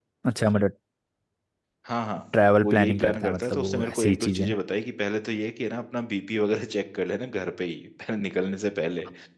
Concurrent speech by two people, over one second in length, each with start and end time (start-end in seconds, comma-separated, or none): 2.6-4.5